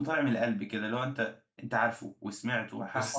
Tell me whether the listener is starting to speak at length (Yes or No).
Yes